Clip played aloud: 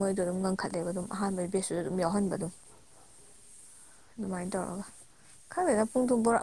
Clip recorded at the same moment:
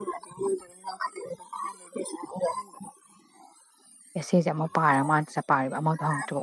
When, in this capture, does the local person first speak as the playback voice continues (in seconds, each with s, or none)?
4.2 s